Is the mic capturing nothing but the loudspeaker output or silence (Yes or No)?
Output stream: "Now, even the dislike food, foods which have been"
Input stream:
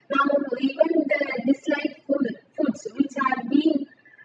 Yes